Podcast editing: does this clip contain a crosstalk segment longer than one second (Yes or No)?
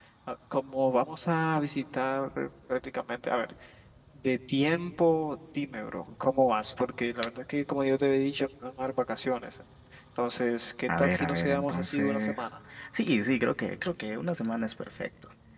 Yes